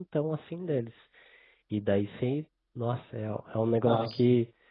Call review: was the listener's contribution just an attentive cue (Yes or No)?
Yes